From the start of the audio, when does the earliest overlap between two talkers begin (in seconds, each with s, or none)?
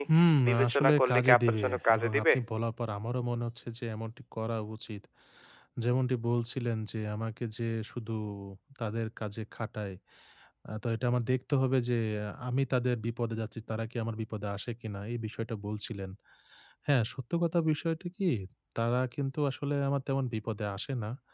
0.7 s